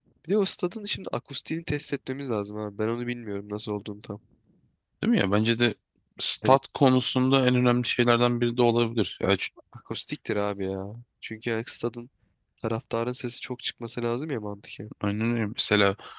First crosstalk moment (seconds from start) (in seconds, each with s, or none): none